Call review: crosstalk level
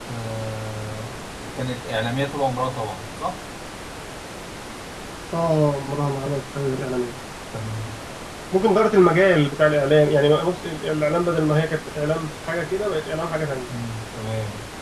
none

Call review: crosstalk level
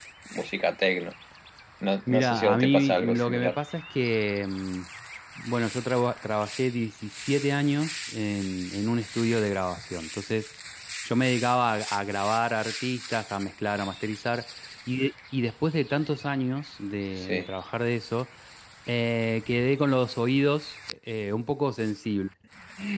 present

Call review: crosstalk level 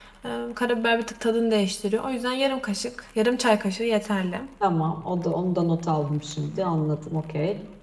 none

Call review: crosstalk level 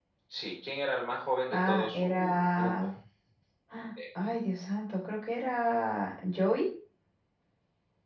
present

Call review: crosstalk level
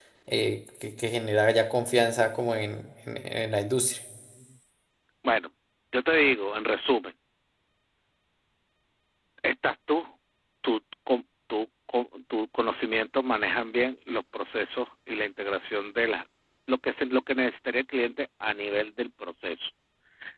none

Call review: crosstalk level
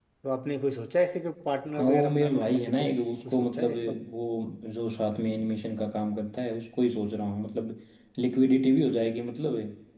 present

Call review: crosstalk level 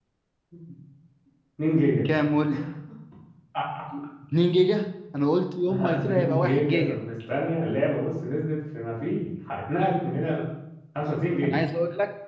present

